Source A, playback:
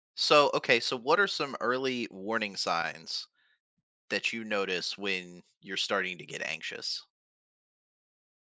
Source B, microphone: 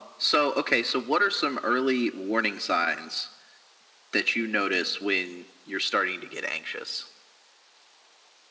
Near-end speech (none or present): none